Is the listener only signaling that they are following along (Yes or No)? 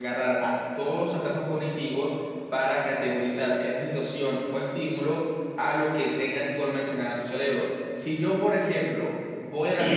No